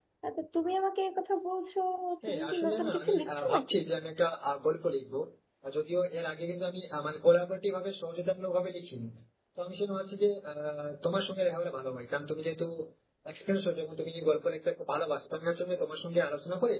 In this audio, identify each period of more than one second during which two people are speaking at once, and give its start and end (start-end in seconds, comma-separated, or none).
2.3-3.8